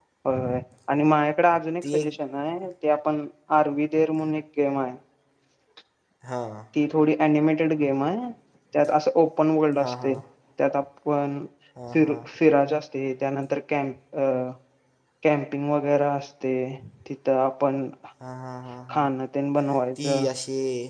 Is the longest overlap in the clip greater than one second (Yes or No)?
No